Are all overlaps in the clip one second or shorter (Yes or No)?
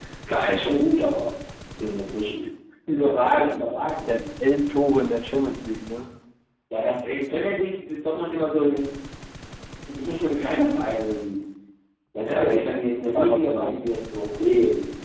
No